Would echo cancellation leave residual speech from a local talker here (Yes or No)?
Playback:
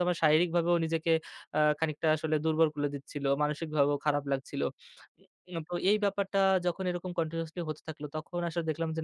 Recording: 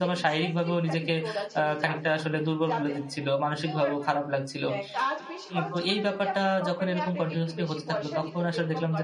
Yes